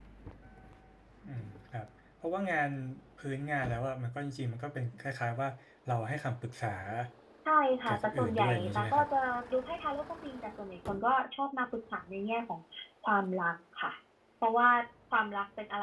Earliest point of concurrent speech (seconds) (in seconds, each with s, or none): 7.9 s